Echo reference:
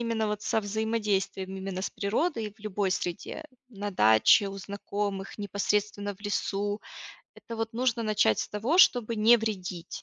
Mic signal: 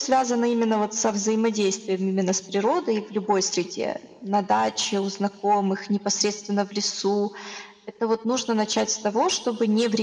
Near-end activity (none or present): none